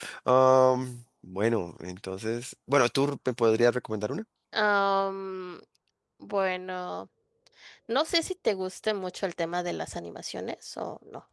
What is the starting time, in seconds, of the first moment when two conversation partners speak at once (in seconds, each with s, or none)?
none